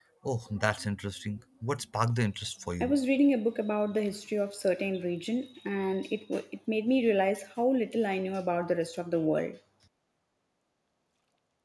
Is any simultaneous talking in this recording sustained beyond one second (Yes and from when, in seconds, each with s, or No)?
No